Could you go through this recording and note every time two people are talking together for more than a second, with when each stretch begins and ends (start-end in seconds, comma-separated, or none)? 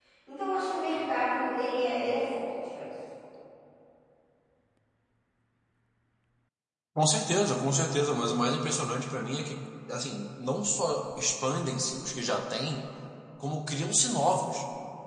none